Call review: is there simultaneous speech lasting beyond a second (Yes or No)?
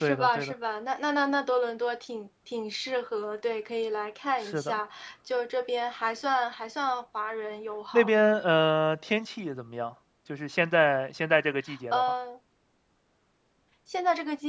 No